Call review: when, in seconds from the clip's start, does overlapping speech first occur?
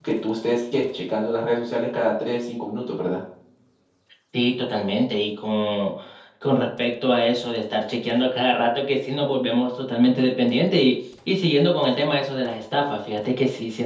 none

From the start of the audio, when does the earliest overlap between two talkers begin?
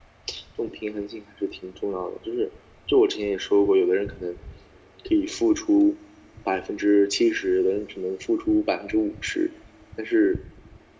none

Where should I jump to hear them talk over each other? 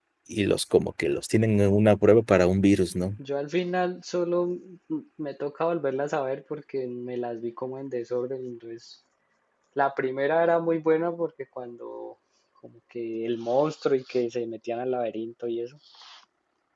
none

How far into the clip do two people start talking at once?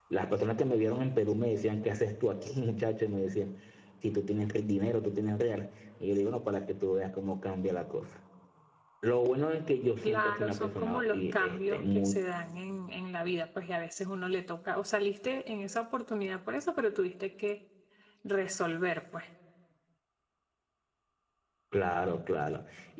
10.0 s

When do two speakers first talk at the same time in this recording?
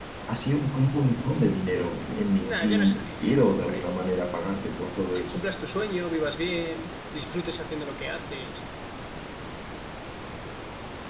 2.5 s

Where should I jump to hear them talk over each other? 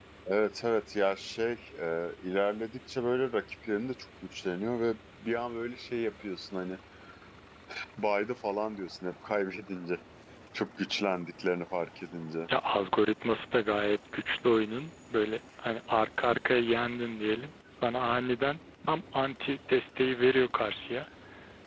none

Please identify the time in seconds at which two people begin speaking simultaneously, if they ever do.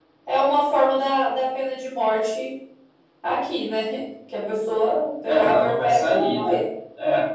5.3 s

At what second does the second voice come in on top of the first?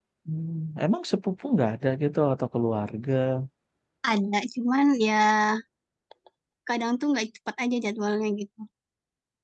none

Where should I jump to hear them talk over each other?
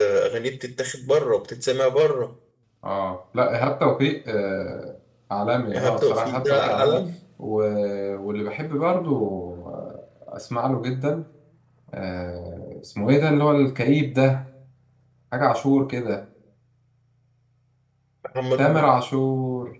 5.7 s

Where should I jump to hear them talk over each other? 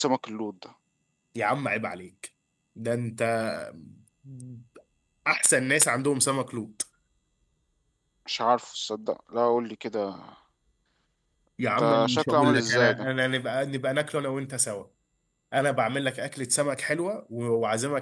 11.8 s

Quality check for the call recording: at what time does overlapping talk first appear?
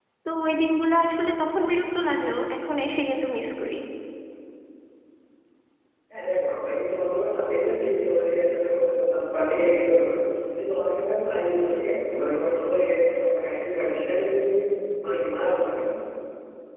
none

